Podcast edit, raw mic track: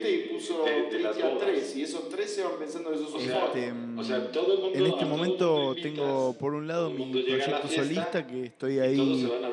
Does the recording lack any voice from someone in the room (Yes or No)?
No